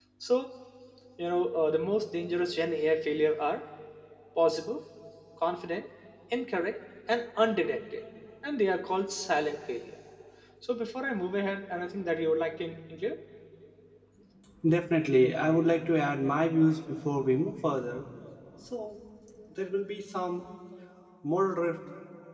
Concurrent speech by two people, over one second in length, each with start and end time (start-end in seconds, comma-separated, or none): none